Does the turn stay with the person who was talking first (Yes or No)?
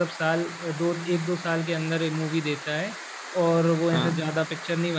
Yes